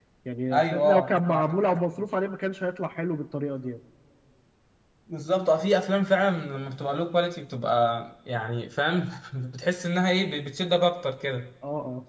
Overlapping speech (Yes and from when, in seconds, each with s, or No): Yes, from 0.5 s